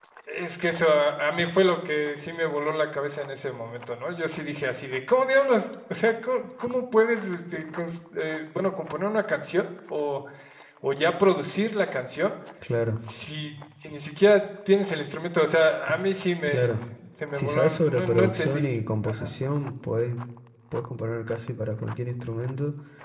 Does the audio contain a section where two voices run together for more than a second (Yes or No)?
Yes